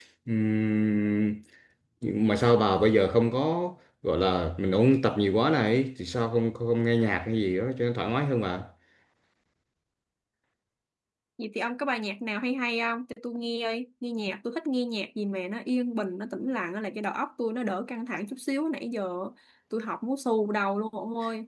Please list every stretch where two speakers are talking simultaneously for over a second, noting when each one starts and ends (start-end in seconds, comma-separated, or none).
none